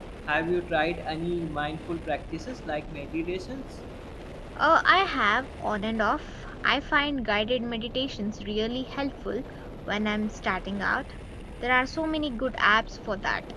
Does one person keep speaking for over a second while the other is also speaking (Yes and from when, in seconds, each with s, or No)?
No